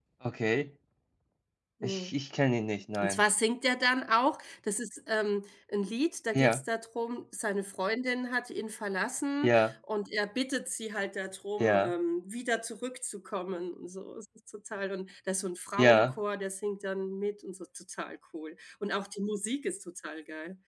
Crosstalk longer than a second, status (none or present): none